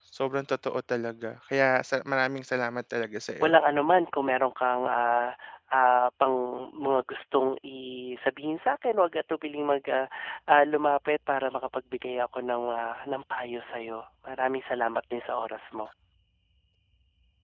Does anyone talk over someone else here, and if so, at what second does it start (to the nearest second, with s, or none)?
none